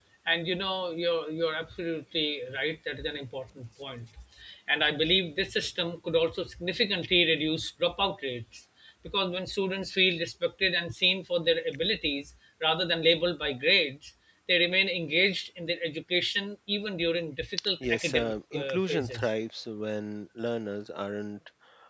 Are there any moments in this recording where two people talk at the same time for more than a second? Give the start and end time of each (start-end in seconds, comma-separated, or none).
17.8-19.3